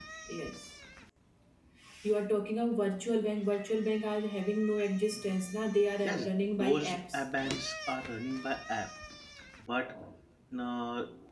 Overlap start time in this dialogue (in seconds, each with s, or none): 6.0 s